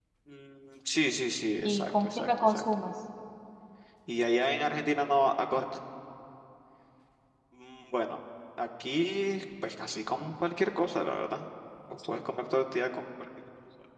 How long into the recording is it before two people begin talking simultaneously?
1.6 s

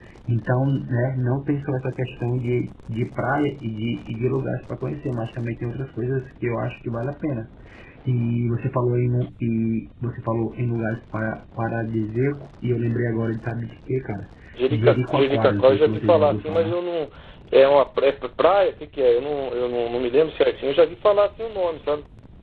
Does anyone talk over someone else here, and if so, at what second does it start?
14.7 s

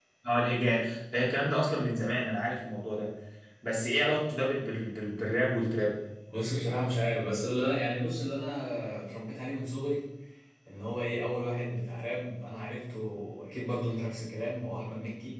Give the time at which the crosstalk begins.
none

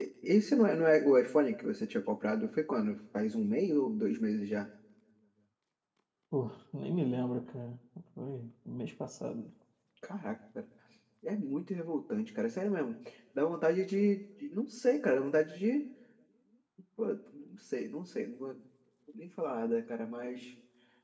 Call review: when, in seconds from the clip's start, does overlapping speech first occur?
none

